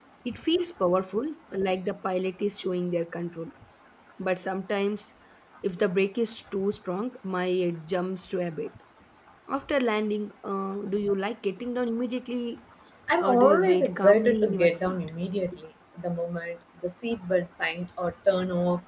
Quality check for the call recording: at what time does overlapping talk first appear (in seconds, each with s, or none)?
13.2 s